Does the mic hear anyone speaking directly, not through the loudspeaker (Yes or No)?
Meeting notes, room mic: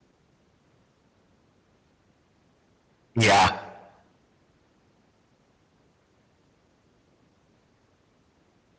Yes